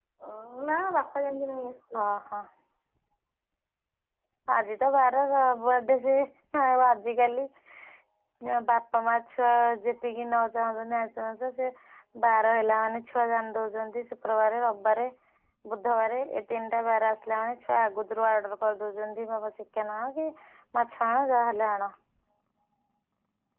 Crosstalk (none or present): none